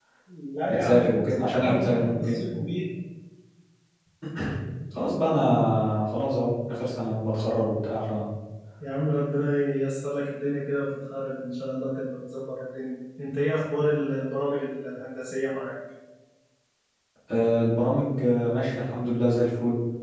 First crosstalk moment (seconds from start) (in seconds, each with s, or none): 0.7 s